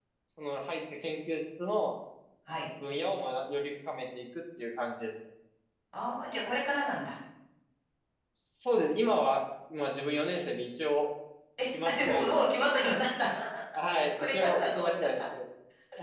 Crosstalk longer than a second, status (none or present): present